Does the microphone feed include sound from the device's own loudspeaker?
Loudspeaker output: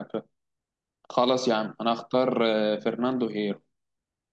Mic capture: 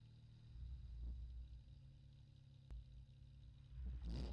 No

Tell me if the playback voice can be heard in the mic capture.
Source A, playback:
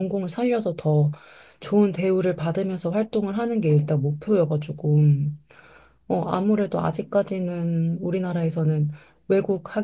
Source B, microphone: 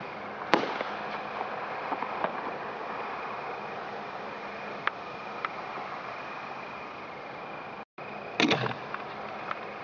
No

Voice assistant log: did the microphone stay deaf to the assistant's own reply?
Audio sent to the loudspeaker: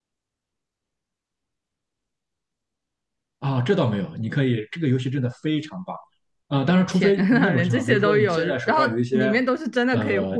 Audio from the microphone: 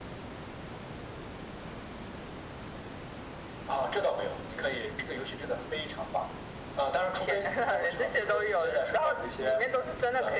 No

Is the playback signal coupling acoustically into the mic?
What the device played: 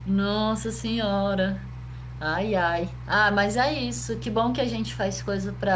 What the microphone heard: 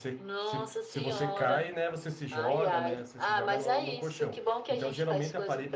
Yes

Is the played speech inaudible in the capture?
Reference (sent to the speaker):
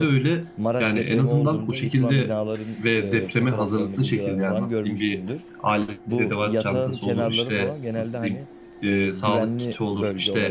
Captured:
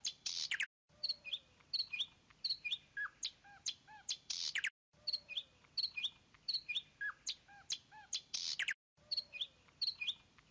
Yes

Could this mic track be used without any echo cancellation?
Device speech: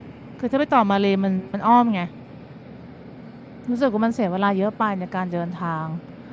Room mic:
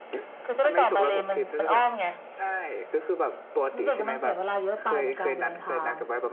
No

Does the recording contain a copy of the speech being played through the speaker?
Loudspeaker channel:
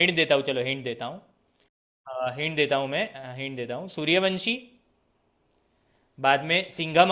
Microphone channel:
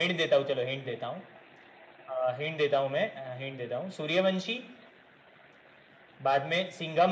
Yes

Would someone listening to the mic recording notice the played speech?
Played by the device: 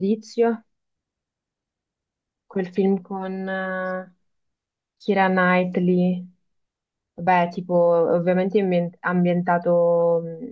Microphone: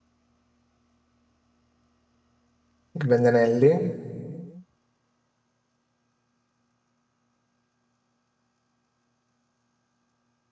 No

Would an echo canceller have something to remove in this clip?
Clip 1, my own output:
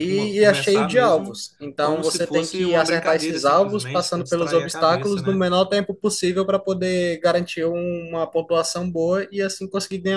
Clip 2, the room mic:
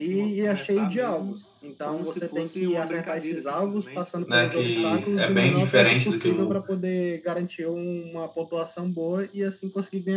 Yes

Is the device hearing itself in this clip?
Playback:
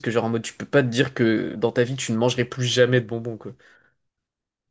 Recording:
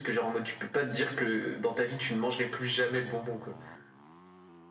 Yes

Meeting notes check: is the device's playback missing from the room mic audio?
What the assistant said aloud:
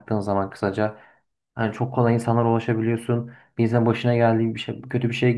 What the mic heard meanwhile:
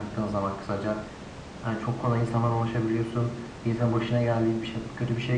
No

